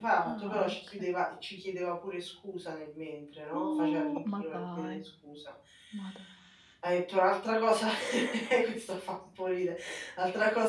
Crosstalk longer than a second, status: present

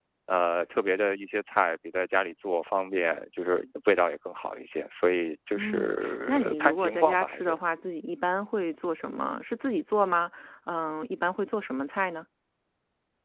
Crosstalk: present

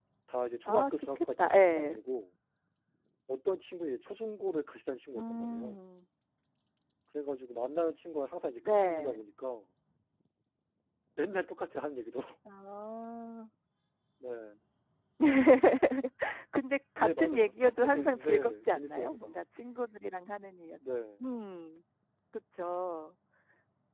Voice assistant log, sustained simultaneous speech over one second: present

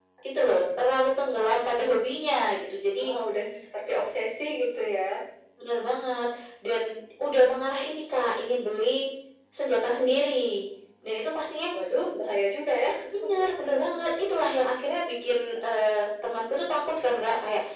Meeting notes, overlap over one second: none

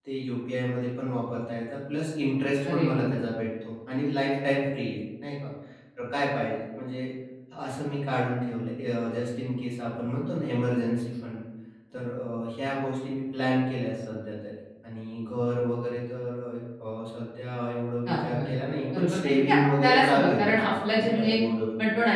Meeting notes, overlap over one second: present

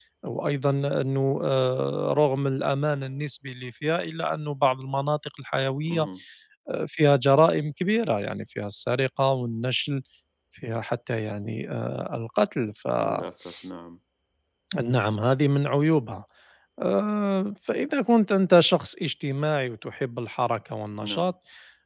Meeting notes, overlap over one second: none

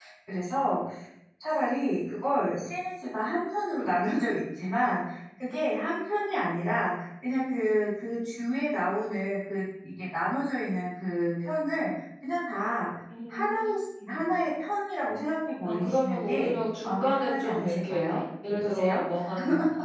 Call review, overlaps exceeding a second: present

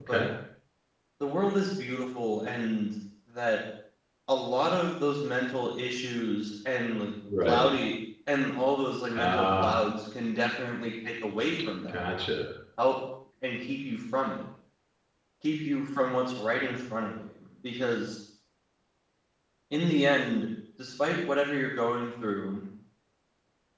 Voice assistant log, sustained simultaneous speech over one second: none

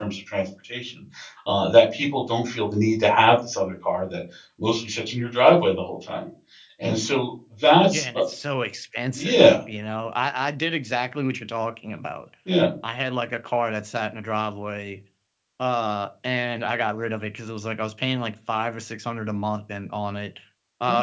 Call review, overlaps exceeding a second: none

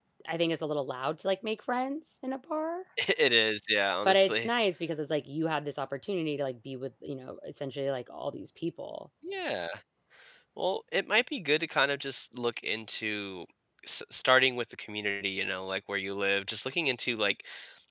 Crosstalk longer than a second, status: none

